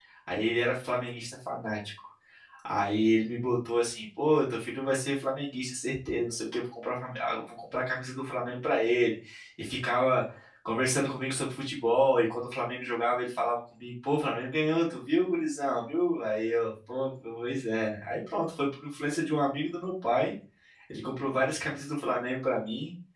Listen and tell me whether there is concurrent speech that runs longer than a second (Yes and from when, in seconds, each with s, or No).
No